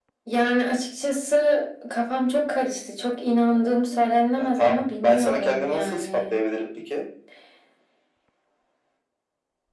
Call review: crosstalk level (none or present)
present